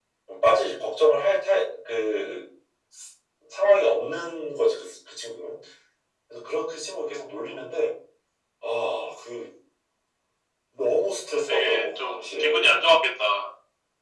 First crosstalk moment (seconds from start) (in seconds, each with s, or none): 11.5 s